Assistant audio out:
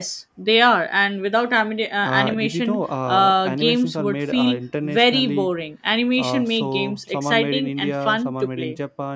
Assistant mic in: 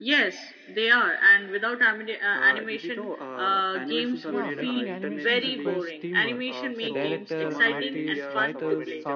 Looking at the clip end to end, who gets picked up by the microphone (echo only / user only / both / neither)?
both